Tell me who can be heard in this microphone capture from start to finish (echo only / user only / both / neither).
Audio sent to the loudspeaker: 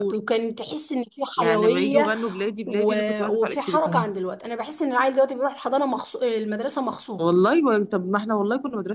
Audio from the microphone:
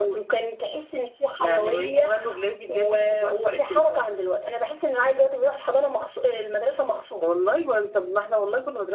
echo only